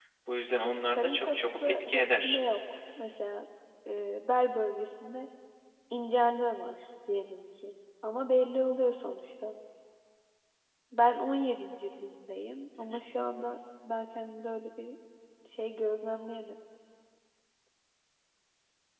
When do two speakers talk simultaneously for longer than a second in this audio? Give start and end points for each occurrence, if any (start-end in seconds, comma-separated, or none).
0.9-2.4